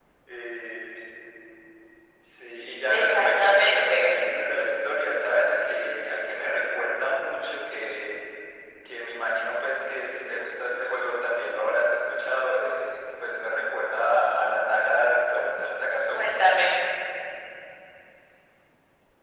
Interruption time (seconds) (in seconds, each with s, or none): 2.9 s